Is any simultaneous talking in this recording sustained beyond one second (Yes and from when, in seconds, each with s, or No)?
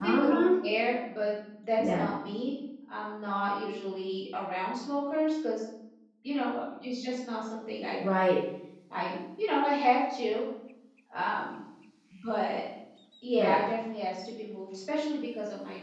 No